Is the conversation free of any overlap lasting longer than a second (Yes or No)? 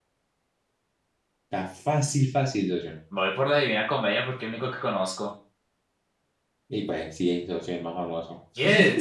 Yes